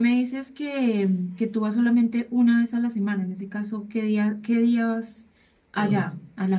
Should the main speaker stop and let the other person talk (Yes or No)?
Yes